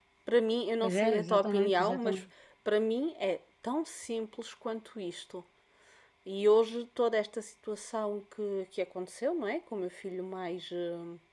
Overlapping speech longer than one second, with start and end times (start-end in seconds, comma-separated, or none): 0.8-2.2